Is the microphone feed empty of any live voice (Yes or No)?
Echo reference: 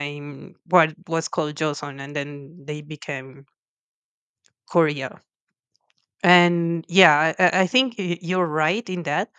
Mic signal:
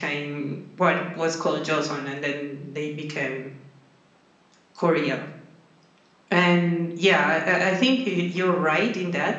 Yes